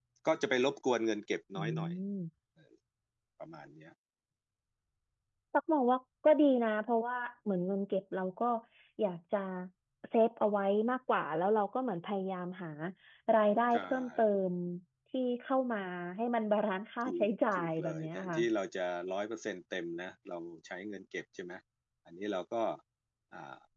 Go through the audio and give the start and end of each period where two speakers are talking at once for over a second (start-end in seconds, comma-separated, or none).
17.0-18.4